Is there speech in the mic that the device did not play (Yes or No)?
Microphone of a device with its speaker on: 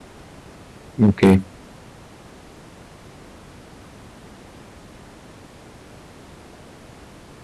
Yes